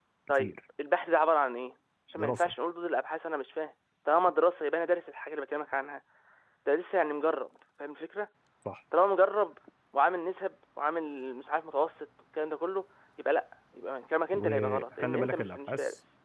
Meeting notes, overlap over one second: present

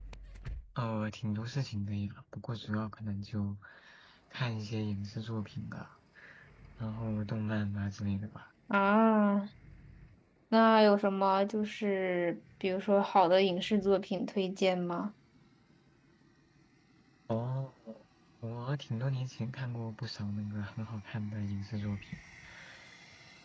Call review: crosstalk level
none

